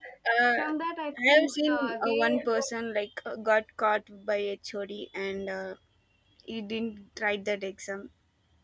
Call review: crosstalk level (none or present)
present